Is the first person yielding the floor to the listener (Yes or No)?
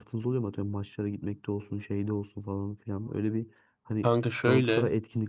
No